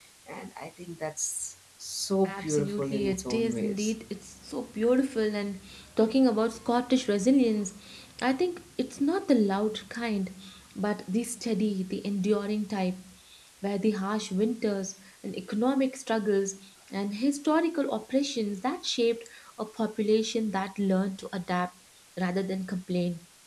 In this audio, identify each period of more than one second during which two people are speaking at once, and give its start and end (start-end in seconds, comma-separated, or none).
2.2-3.9